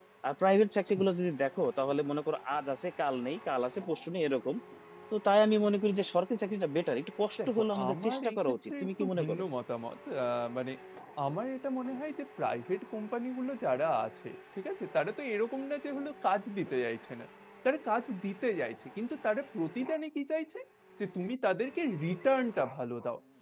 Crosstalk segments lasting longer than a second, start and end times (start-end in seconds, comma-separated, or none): 7.5-9.4